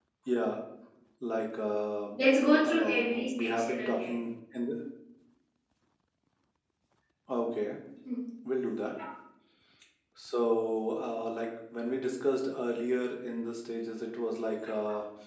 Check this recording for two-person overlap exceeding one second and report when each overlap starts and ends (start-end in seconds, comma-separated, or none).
2.6-4.2